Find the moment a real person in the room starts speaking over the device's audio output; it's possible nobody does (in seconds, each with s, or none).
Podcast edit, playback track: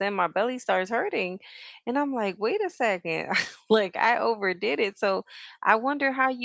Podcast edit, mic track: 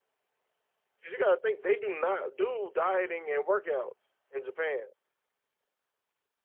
1.0 s